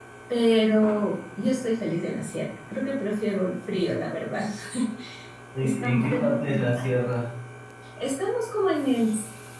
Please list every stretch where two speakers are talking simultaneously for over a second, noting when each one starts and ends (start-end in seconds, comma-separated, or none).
5.6-6.9